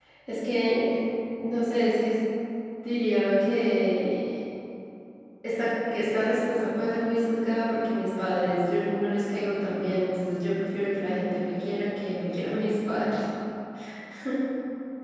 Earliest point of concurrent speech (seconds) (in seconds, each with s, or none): none